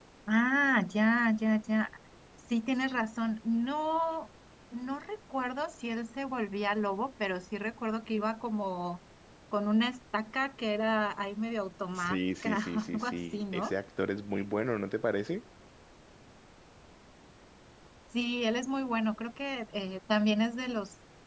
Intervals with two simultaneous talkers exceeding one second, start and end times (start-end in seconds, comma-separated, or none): 11.9-13.7